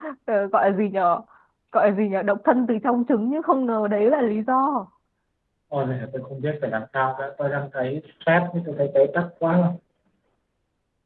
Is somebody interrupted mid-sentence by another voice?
No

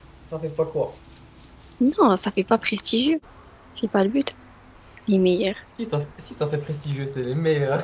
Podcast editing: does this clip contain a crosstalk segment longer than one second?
No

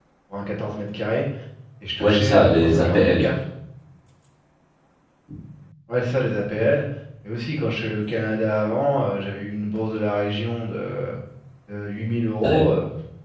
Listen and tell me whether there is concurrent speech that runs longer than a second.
Yes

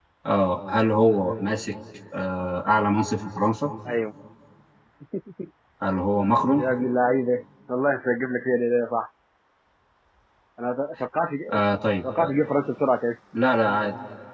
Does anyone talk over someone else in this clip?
No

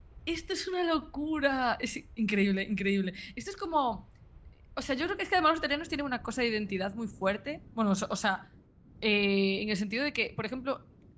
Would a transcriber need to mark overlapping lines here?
No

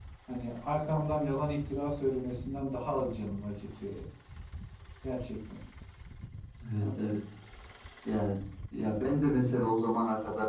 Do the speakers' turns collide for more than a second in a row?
No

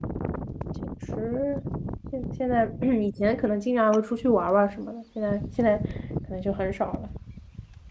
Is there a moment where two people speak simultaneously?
No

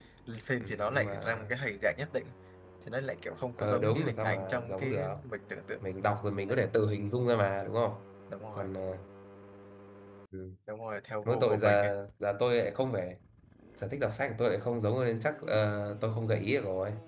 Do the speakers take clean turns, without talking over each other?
No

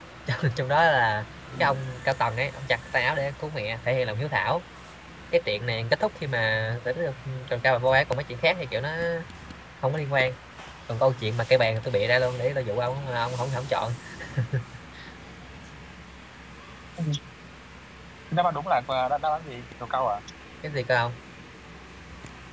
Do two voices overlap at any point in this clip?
No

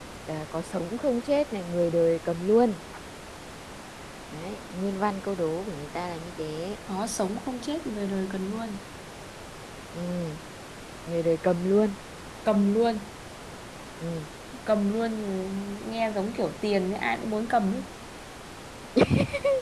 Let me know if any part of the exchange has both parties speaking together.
No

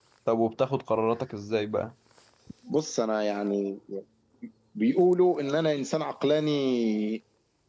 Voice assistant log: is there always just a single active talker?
Yes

